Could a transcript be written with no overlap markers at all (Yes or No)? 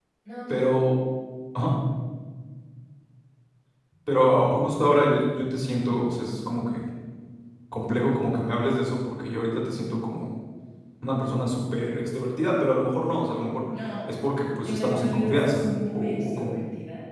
No